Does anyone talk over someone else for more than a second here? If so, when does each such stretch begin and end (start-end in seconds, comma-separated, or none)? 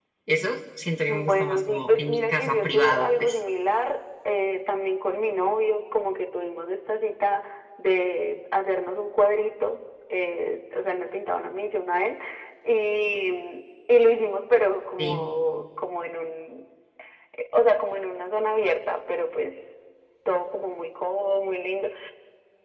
1.1-3.4